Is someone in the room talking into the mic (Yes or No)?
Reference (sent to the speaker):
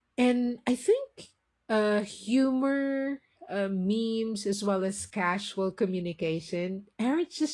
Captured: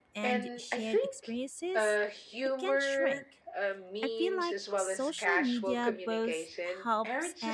Yes